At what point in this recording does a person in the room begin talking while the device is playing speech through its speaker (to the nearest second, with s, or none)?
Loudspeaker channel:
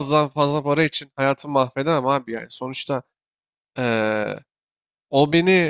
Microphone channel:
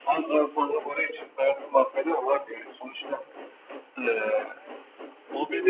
none